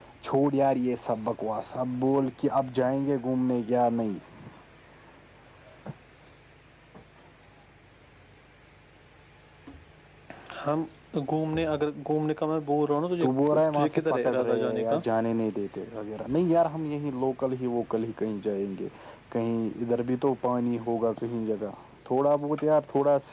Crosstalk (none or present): present